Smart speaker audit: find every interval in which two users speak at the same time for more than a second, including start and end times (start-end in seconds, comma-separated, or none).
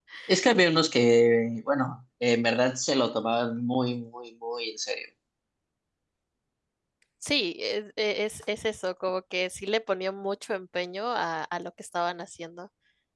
none